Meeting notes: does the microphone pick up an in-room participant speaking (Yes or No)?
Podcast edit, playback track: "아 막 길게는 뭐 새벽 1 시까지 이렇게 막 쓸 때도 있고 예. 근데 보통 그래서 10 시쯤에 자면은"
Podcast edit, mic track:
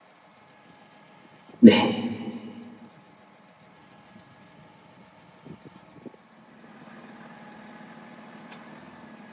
Yes